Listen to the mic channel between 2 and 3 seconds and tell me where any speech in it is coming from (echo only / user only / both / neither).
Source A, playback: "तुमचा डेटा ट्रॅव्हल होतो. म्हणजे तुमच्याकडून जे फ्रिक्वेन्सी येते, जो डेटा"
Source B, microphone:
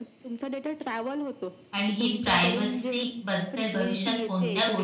both